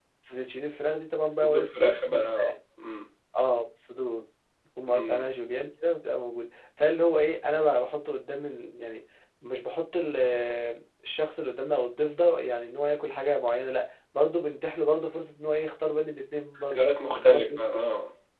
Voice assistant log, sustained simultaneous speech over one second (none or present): present